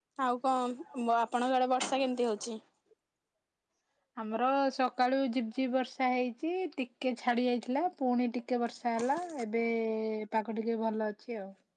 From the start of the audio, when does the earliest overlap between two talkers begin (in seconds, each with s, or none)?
none